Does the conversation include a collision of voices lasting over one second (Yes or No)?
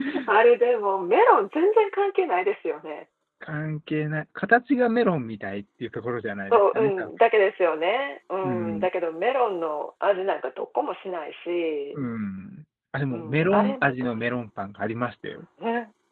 Yes